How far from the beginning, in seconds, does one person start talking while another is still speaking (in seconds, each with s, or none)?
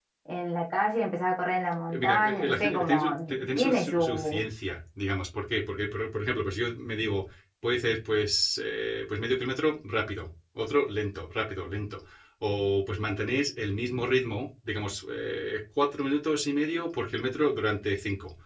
1.9 s